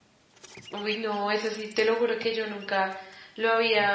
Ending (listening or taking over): listening